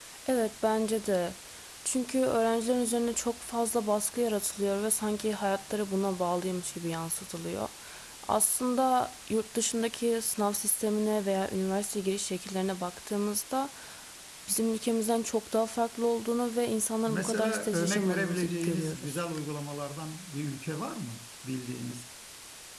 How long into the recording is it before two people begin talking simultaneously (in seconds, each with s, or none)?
17.1 s